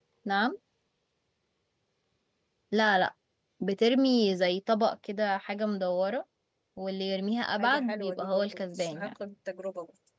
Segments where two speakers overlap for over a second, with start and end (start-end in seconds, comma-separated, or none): 7.6-9.1